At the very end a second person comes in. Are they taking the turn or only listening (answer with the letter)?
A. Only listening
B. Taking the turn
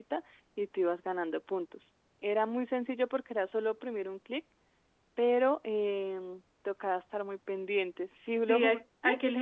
B